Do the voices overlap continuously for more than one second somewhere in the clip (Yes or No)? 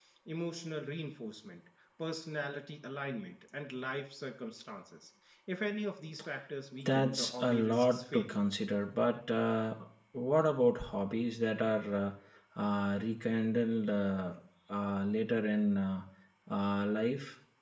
Yes